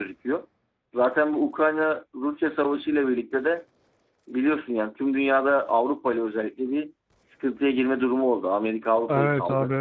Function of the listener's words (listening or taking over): taking over